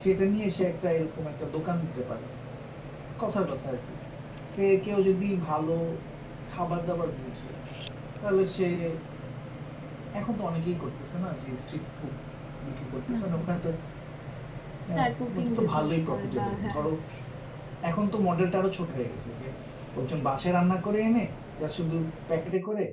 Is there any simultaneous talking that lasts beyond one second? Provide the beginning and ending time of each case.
14.9-16.8

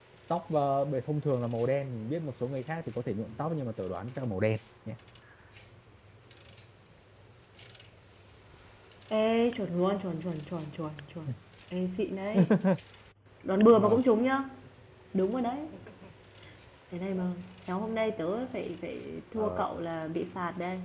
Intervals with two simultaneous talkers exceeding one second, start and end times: none

